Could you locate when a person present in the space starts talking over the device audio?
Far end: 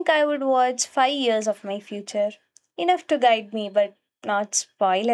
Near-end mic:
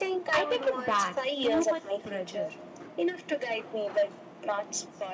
0.3 s

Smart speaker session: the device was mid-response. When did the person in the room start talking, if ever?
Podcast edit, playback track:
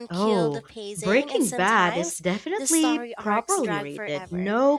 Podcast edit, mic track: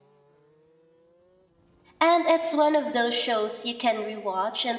2.0 s

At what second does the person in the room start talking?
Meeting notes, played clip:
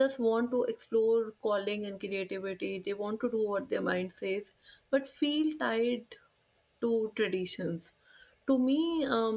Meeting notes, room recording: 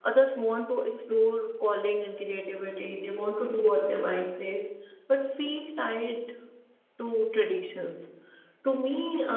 none

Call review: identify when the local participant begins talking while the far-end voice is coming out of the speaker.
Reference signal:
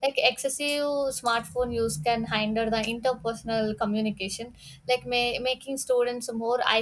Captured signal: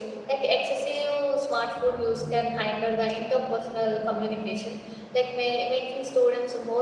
none

